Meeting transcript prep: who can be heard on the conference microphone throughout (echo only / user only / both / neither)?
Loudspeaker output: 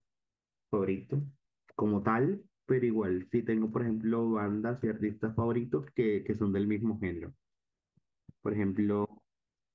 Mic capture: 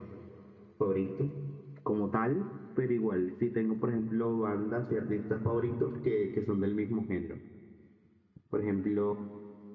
echo only